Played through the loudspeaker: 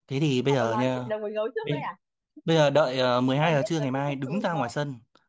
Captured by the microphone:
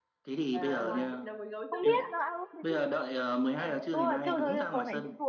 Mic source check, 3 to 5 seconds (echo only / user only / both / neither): both